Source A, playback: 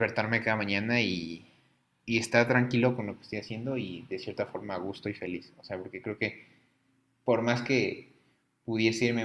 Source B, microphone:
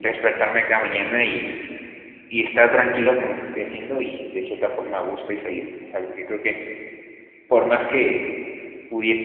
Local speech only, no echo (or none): none